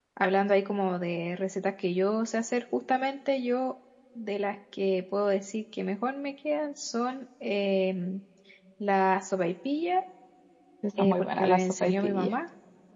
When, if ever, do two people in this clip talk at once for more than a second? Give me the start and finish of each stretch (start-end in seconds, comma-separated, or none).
11.0-12.3